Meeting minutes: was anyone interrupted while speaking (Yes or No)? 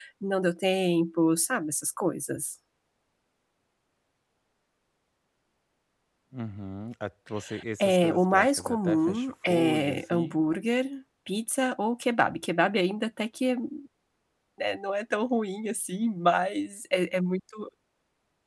Yes